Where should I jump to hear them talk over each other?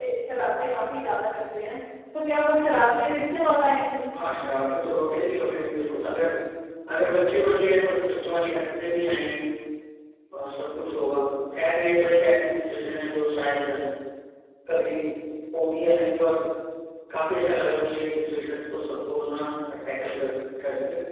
none

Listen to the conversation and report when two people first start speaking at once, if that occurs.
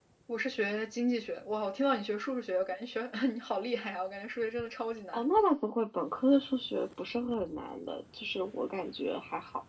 none

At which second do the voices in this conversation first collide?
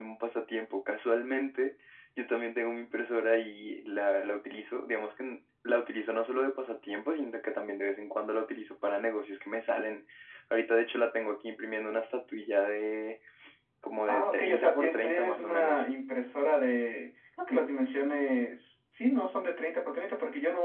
14.1 s

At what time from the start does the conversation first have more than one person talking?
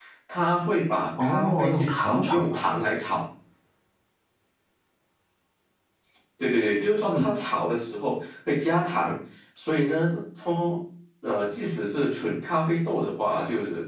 1.2 s

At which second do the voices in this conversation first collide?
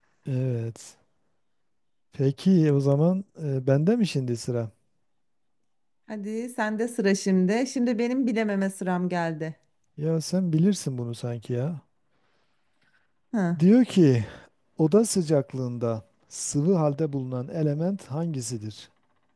none

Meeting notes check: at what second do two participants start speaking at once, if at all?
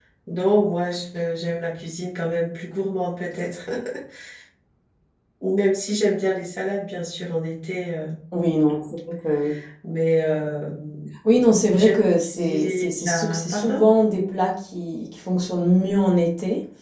11.7 s

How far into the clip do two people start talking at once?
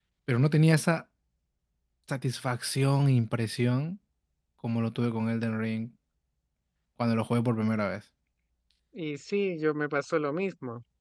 none

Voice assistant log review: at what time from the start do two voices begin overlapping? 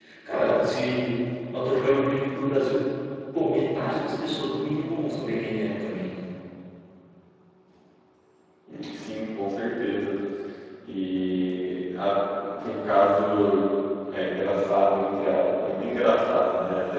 none

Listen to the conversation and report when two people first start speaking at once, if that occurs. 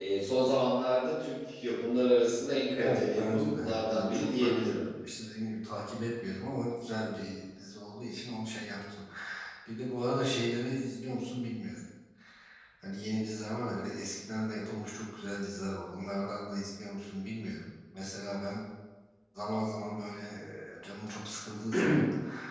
2.8 s

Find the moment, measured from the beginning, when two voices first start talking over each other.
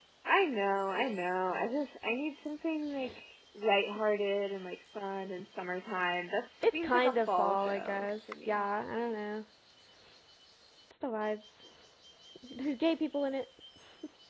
6.6 s

